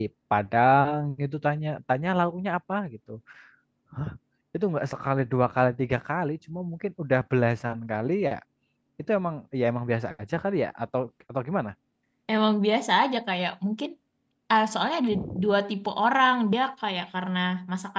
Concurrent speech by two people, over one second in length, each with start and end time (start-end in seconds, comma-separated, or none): none